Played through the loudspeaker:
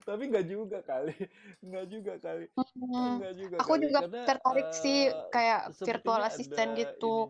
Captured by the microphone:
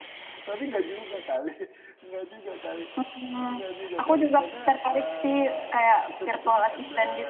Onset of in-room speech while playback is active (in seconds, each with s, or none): none